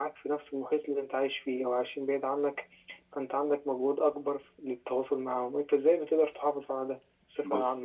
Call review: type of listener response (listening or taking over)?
taking over